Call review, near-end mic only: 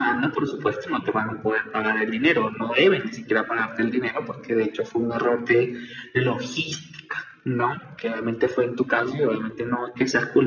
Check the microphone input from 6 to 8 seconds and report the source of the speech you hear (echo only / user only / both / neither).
echo only